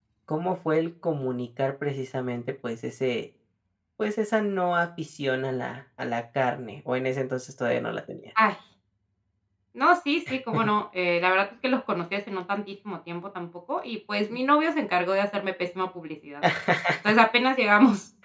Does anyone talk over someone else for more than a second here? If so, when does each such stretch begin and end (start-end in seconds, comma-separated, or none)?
none